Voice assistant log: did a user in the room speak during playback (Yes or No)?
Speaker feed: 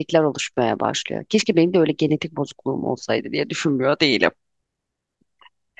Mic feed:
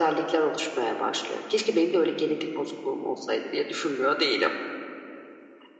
No